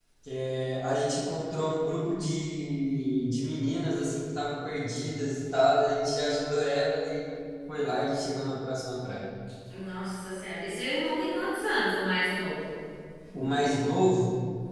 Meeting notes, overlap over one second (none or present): none